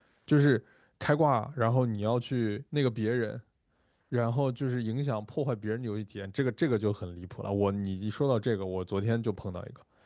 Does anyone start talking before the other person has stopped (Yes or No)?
No